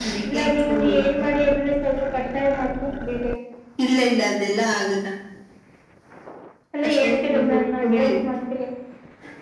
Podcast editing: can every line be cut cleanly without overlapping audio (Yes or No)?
No